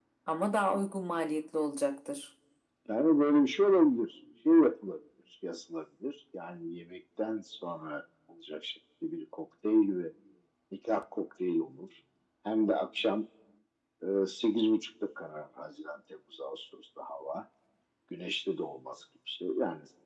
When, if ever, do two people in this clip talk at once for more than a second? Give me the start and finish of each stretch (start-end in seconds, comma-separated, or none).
none